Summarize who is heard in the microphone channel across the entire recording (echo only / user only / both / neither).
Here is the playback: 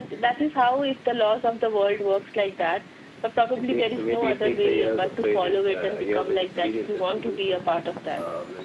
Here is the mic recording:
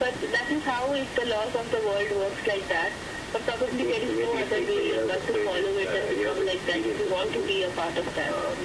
echo only